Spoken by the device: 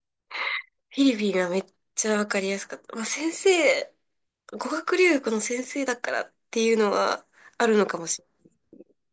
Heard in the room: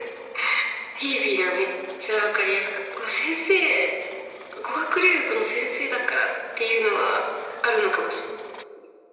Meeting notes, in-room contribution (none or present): none